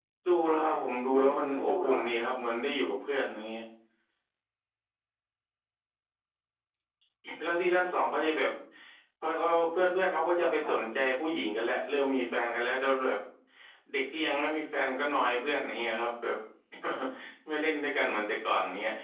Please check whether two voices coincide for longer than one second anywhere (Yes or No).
Yes